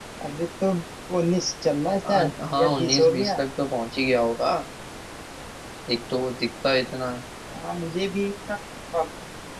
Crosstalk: present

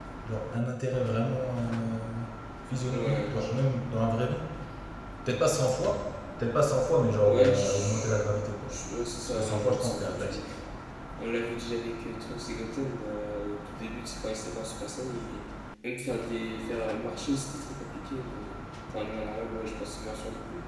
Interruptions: present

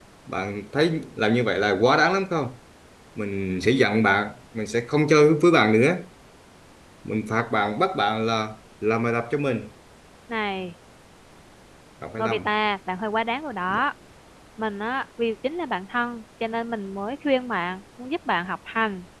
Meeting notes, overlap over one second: none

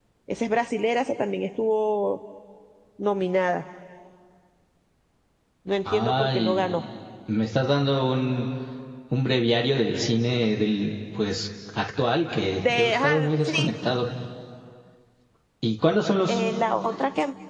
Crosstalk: present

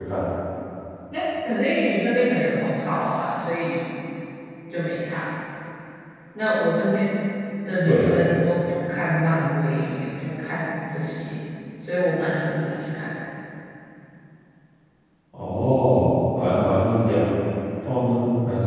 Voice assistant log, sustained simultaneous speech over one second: none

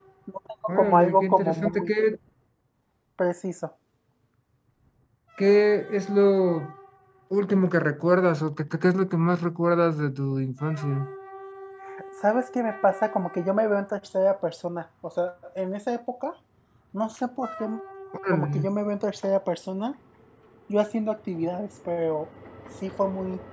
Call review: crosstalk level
present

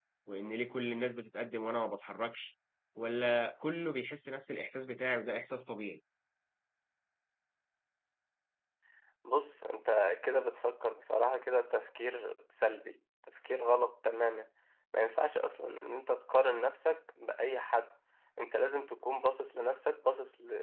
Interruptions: none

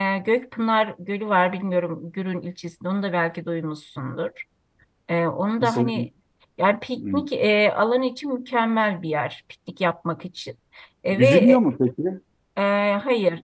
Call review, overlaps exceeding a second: none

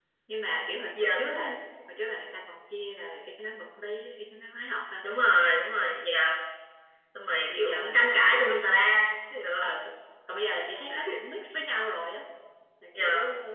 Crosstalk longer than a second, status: present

